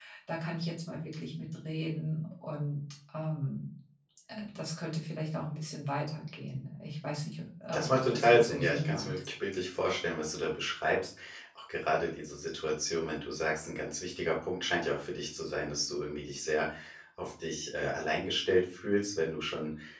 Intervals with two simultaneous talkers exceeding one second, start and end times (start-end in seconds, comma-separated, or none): 7.7-9.2